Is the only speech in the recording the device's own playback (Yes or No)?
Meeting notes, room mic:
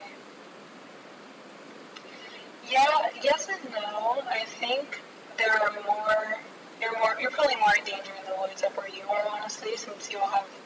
Yes